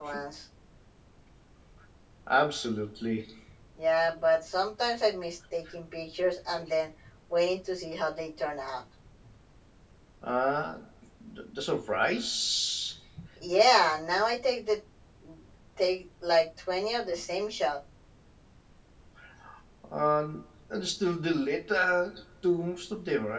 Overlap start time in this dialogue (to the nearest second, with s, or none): none